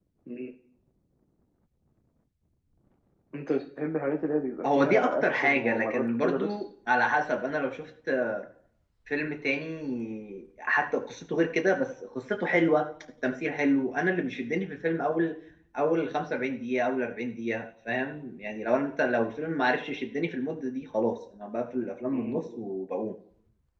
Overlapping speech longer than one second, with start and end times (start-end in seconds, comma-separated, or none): 4.6-6.5